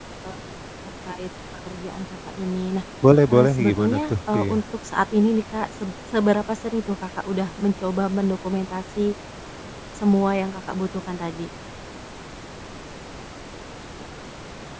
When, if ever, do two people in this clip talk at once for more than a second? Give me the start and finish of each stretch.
3.3-4.6

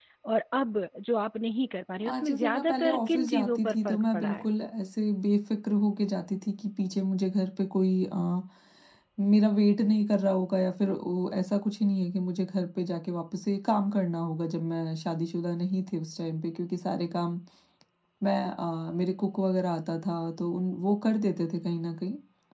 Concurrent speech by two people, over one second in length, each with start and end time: 2.1-4.5

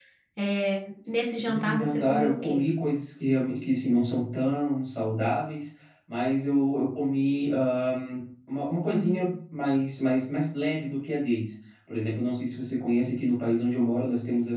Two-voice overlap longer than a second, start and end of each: 1.4-2.6

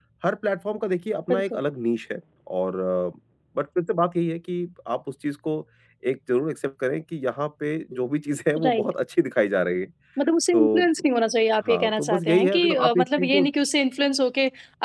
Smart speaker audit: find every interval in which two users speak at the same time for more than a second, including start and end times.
11.6-13.4

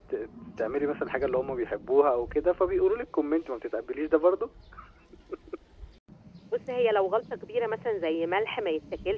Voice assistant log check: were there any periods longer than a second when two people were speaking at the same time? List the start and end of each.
none

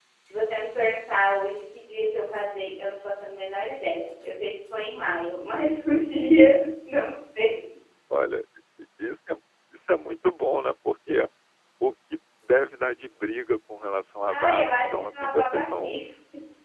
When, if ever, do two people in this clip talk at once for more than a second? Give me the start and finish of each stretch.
14.3-16.0

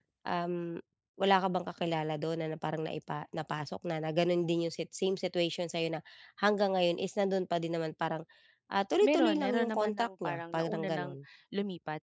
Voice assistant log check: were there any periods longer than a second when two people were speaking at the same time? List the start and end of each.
9.0-11.1

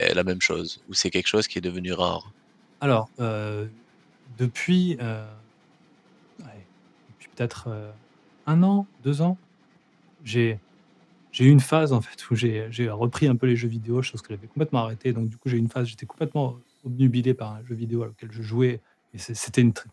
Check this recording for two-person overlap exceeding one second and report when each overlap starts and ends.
none

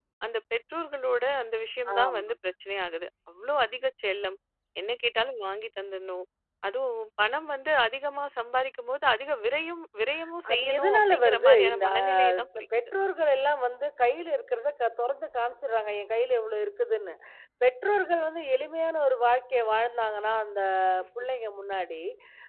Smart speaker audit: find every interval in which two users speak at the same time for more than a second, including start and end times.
10.5-12.9

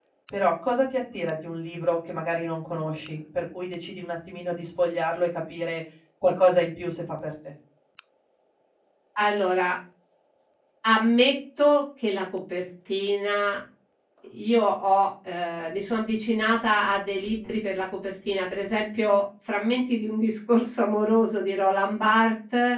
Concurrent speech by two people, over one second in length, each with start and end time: none

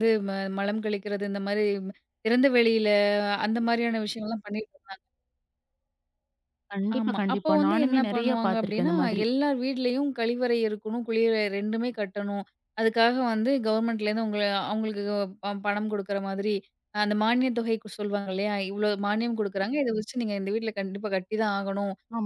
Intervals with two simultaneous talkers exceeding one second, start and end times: 7.0-9.2

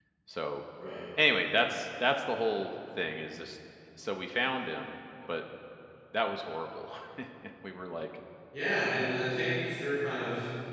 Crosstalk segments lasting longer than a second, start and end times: none

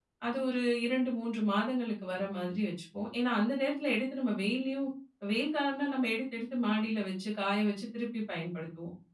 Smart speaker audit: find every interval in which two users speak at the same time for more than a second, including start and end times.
none

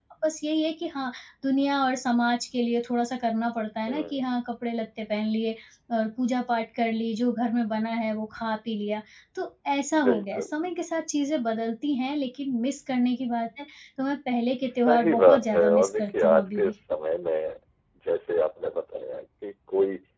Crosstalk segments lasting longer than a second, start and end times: 14.9-16.7

